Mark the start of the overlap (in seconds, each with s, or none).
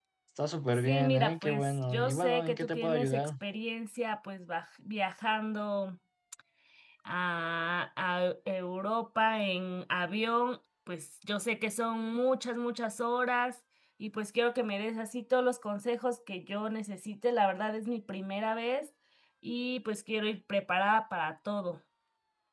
0.8 s